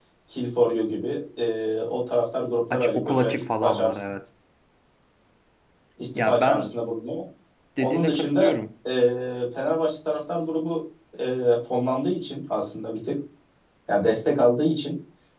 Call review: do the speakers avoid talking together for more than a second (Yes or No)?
No